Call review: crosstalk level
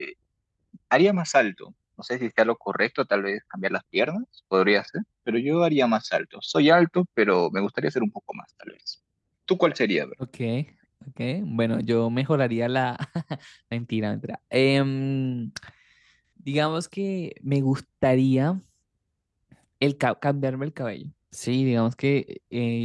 none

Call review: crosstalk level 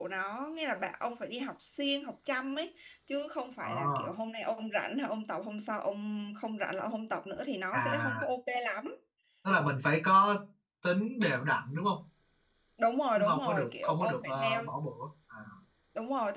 present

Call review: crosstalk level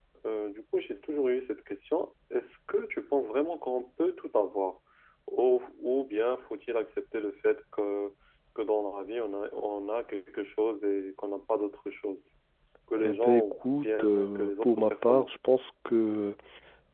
present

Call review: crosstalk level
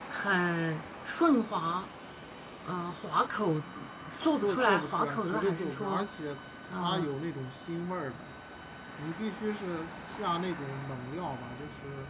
present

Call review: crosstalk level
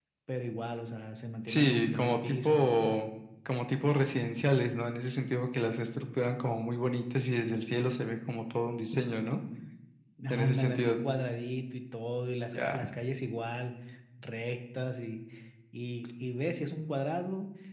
present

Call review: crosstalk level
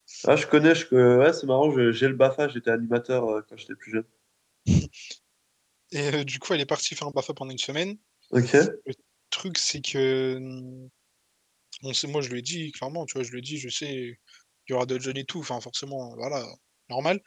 none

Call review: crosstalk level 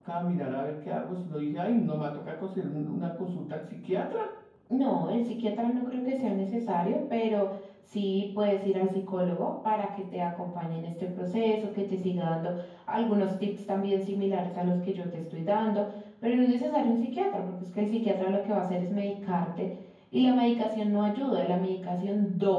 none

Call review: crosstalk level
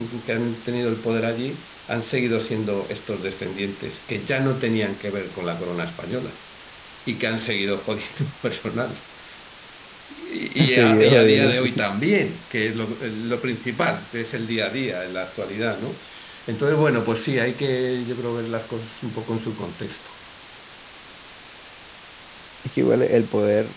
present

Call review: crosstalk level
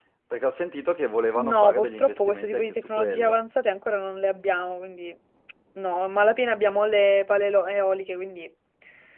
present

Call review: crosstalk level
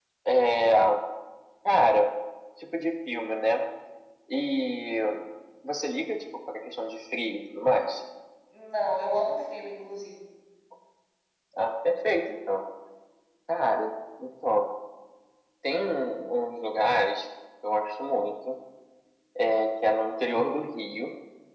none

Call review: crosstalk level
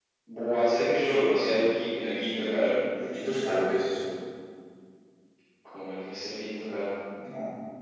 none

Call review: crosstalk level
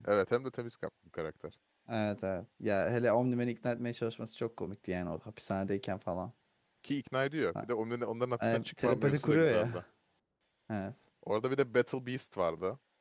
present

